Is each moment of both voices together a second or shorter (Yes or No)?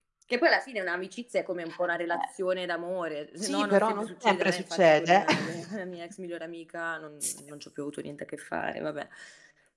No